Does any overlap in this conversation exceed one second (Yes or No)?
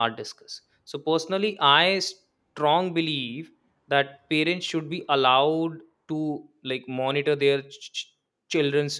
No